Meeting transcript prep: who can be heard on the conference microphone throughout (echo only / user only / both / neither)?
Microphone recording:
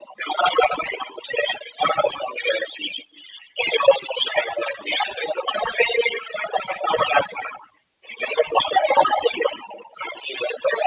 echo only